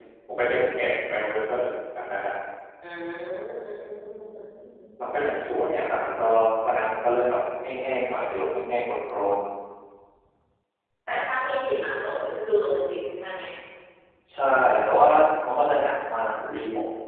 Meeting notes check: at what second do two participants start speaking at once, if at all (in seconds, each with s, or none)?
none